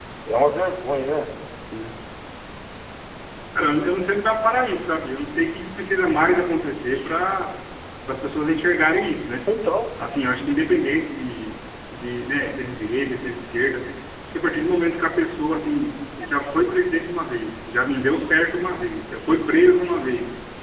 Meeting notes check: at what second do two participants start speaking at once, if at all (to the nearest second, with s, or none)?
none